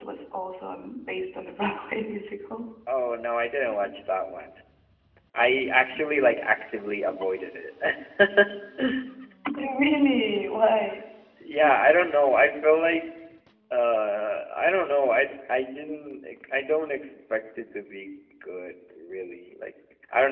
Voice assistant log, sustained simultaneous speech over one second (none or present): none